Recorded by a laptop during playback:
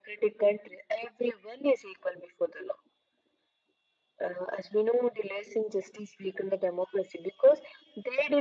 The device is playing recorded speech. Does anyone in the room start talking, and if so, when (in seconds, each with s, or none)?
none